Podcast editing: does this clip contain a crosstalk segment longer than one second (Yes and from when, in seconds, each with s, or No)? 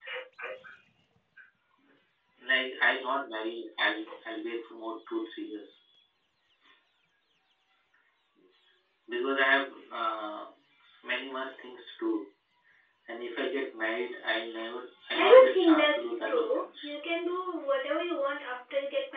Yes, from 15.1 s